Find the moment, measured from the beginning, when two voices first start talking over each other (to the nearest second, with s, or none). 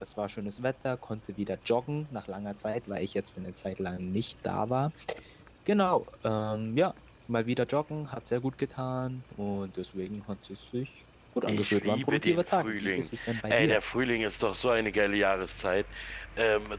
11 s